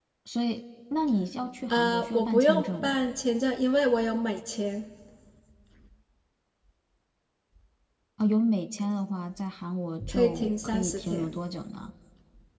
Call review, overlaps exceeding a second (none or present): present